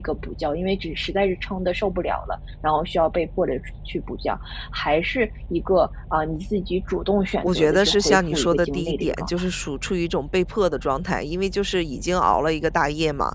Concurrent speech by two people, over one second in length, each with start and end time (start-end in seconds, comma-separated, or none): 7.4-9.5